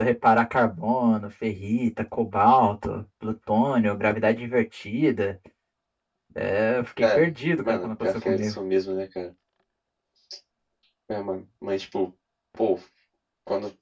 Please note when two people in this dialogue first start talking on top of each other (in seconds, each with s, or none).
7.0 s